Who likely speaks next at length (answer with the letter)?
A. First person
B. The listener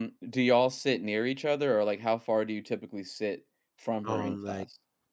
B